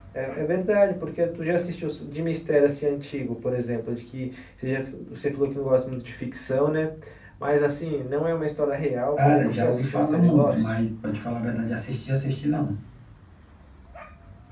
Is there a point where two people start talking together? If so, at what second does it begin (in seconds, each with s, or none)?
9.2 s